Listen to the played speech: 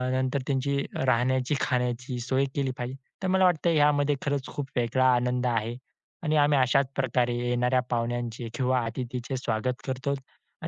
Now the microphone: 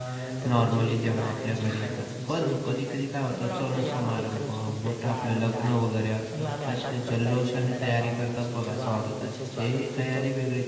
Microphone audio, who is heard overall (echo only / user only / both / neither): both